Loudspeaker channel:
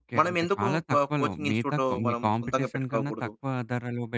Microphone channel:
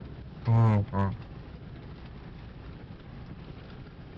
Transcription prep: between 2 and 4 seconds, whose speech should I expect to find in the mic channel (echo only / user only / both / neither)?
neither